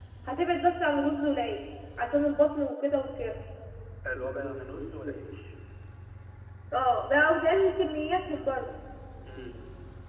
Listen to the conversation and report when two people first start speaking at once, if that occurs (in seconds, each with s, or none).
none